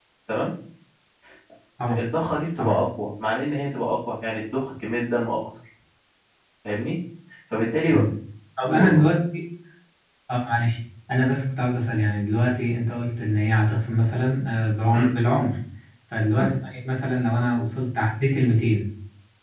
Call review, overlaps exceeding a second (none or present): none